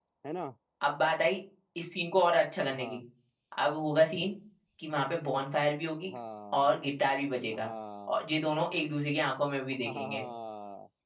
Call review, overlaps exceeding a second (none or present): none